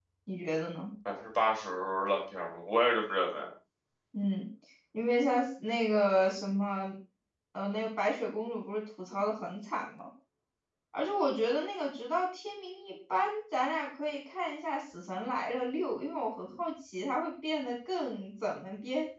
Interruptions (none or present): none